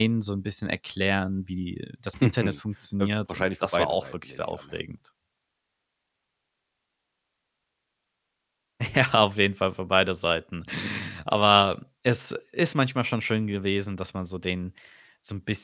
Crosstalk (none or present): present